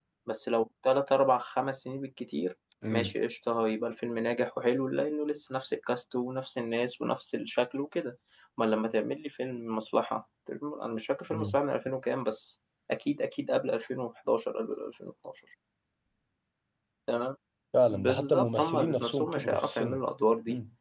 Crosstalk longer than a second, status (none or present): present